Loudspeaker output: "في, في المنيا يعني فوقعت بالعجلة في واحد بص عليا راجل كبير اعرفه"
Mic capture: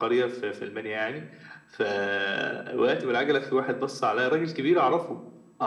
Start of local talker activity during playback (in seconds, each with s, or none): none